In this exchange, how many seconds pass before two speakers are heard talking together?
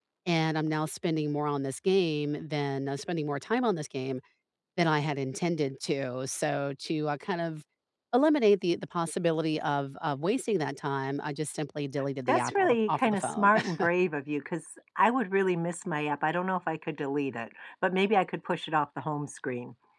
12.3 s

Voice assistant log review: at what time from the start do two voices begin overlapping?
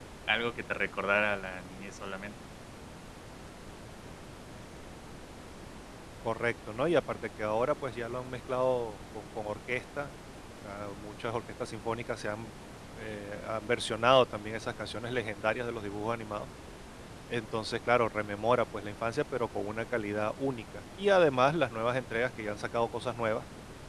none

